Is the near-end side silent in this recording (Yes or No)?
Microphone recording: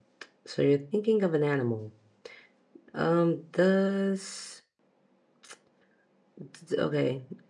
No